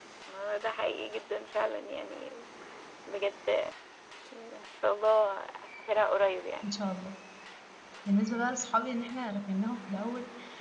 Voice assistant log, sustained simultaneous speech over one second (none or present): none